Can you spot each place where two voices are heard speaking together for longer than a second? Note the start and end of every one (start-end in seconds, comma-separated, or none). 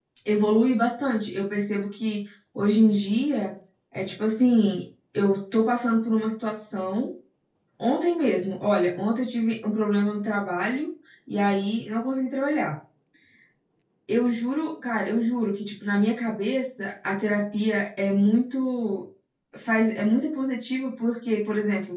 none